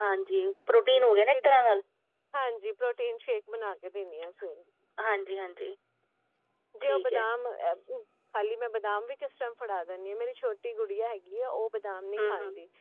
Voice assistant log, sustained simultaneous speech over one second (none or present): none